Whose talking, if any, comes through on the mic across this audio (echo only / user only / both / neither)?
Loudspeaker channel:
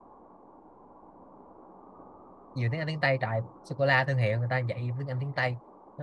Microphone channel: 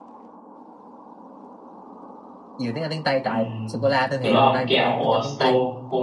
both